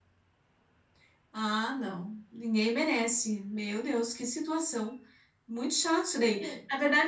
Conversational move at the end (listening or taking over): listening